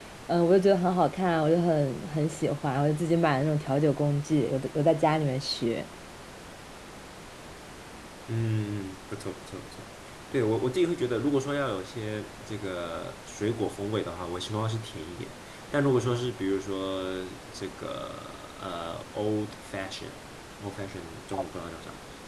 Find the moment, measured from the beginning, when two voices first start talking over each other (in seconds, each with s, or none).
none